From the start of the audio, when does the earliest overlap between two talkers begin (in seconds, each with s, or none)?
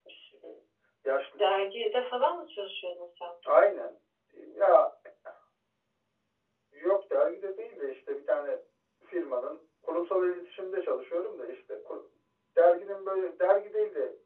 none